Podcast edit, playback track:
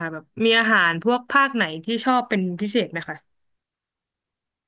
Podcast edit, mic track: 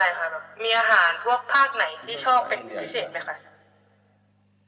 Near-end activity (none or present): present